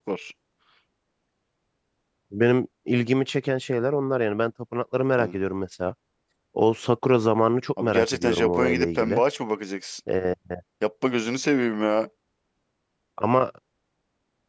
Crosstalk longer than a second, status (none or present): present